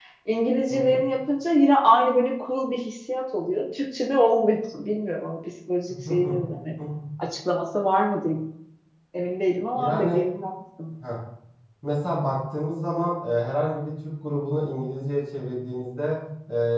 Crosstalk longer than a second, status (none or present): none